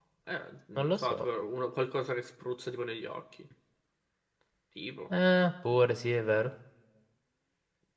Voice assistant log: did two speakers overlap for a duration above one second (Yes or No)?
No